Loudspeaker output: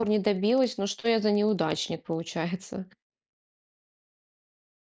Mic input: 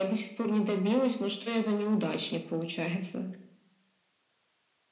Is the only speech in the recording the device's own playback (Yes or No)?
Yes